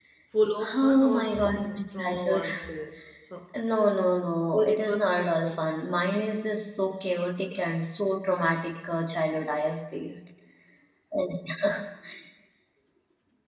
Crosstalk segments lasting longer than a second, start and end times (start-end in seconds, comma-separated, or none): 0.7-2.4, 4.5-5.7